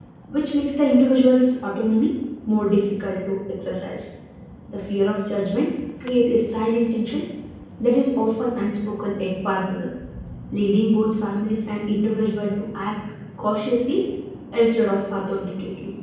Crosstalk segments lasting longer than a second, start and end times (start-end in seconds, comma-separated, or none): none